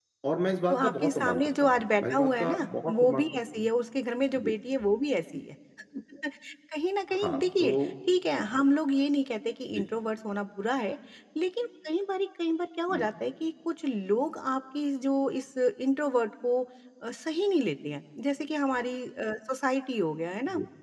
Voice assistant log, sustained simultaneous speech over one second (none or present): present